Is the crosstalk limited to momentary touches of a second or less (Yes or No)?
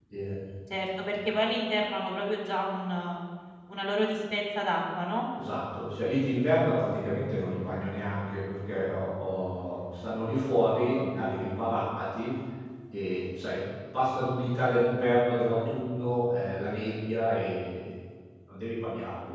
Yes